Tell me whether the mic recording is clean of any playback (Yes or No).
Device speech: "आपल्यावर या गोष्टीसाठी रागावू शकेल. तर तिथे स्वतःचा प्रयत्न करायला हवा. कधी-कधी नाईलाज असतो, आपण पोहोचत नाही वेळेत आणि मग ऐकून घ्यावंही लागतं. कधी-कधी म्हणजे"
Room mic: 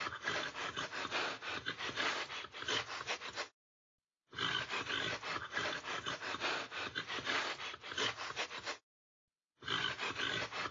Yes